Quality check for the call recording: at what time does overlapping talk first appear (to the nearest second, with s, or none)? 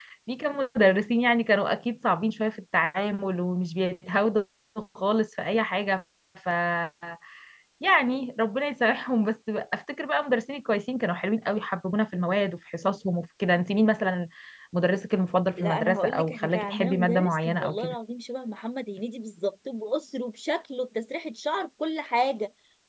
16 s